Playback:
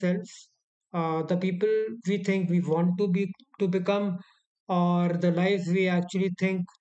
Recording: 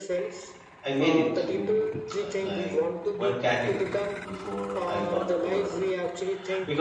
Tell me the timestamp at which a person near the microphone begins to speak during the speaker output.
1 s

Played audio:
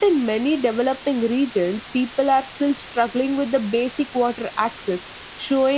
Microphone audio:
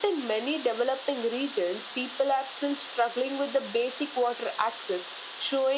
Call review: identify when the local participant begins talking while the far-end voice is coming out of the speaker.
none

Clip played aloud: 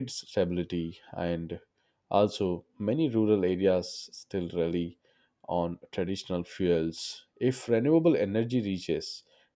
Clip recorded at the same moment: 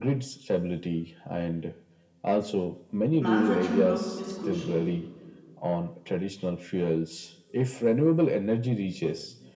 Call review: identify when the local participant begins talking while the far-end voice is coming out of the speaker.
3 s

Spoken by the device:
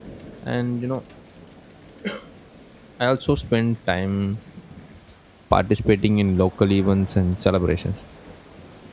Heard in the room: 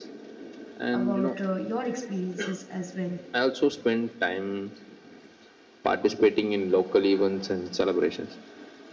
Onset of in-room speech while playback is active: 1 s

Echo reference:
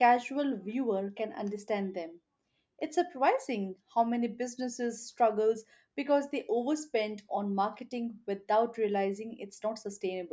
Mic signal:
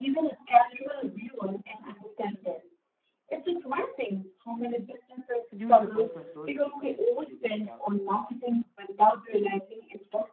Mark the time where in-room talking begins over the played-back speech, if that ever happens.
5 s

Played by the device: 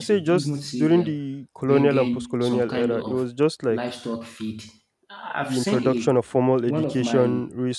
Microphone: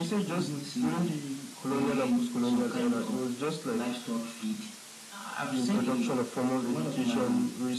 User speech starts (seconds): none

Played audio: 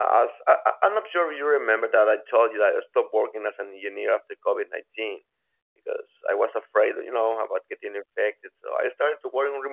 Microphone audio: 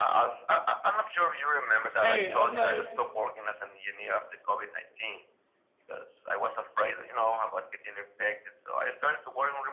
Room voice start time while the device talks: 2 s

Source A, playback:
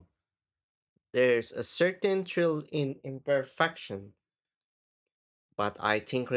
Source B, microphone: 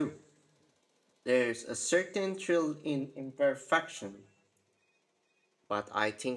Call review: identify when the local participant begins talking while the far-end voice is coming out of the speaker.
none

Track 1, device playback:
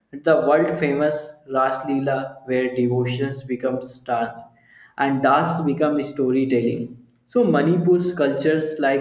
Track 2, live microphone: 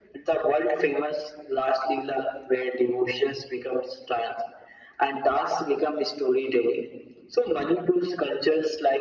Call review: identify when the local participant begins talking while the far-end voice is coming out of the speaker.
none

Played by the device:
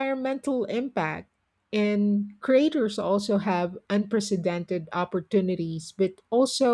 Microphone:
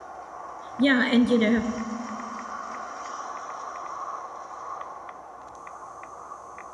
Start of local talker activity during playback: 1 s

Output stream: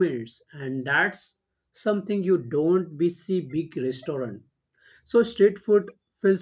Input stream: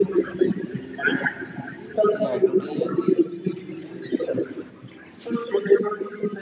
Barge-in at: 2 s

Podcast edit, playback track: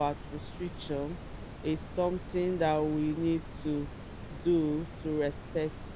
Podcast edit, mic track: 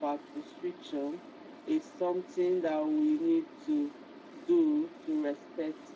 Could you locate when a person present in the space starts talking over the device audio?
none

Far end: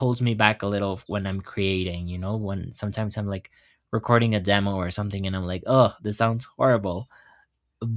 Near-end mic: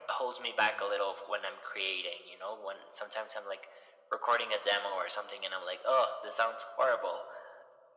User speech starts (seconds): none

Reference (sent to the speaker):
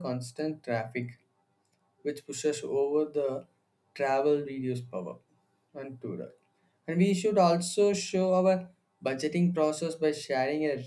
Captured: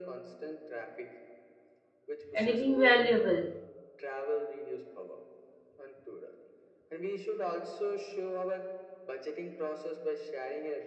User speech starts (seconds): 2 s

